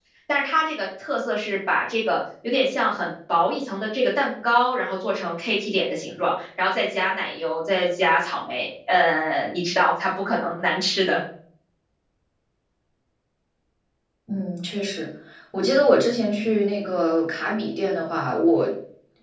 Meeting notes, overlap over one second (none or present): none